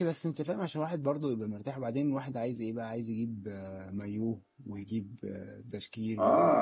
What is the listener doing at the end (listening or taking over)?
taking over